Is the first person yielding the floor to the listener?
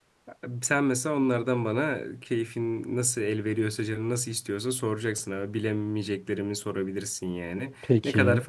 No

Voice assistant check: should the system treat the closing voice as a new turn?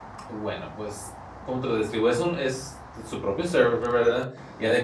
No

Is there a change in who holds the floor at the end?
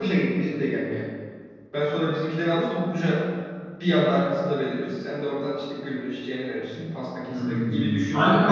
Yes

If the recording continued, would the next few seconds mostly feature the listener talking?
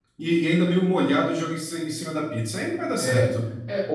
Yes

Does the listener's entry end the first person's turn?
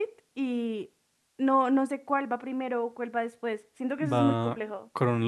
Yes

